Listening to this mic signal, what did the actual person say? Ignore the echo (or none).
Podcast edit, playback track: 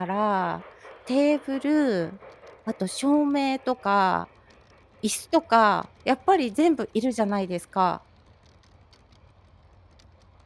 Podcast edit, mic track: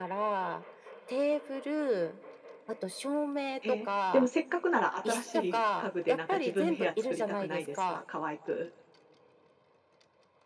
ええ。でもせっかくなら新しい家具でなんか自分の部屋作りたくないですか？可愛く。